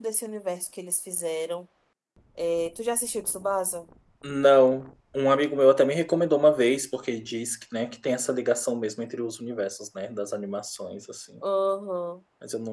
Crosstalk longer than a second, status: none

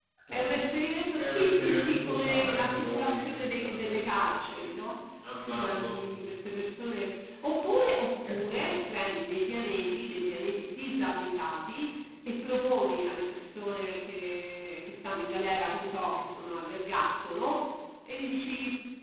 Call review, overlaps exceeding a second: present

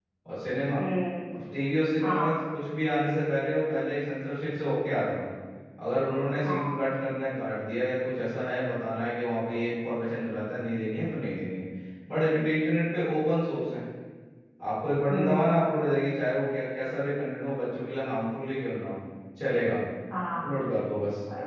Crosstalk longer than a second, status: none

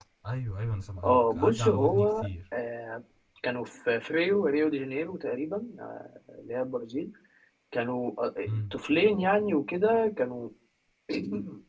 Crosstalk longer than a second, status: present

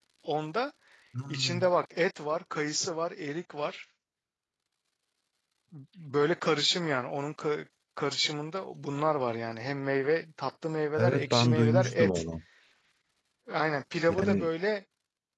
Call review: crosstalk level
present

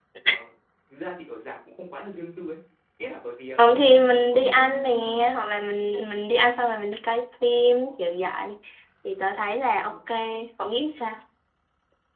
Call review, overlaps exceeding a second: present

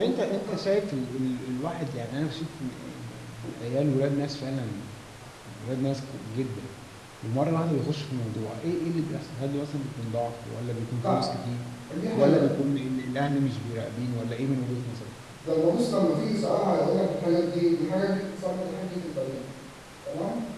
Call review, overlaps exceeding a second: none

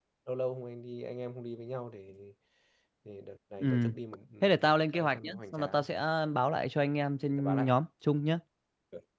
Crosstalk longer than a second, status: present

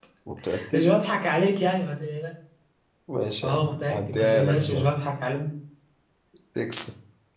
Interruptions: present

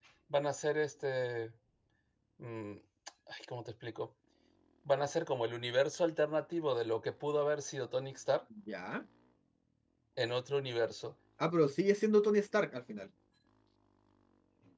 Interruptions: none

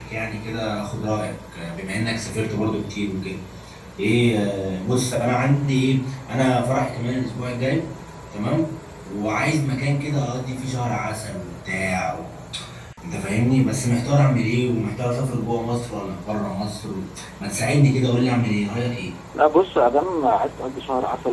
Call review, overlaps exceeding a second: none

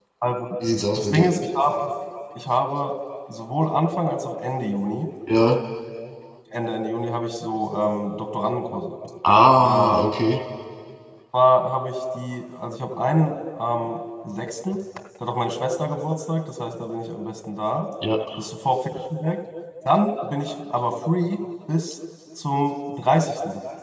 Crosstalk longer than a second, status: none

